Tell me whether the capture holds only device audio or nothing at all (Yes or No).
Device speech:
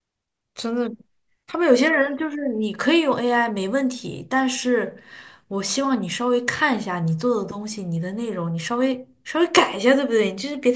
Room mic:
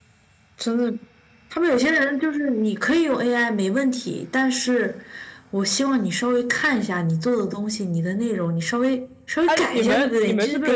No